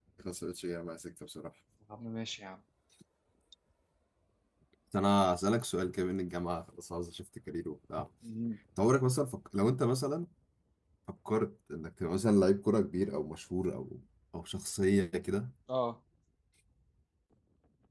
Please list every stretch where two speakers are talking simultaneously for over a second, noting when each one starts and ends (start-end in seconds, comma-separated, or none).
none